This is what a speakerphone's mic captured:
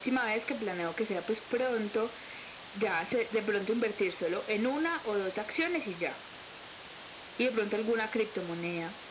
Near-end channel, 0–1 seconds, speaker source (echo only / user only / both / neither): echo only